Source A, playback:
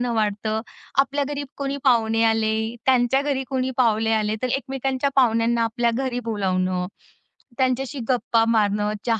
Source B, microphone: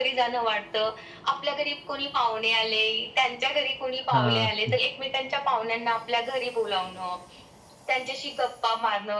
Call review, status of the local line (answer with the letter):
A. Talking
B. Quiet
A